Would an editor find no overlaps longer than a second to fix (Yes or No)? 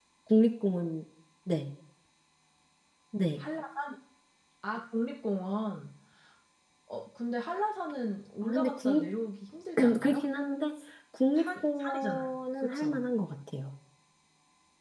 No